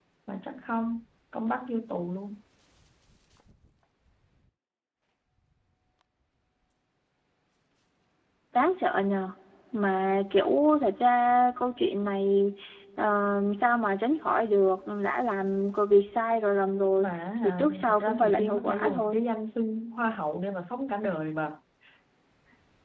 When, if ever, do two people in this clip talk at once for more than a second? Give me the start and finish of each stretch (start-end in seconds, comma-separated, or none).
17.4-19.2